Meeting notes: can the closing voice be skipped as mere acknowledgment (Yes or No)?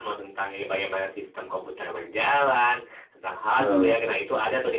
Yes